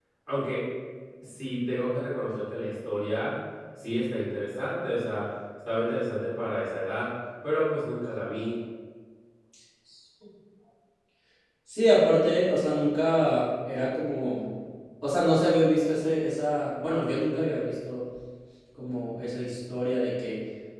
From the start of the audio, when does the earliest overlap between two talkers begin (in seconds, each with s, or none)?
none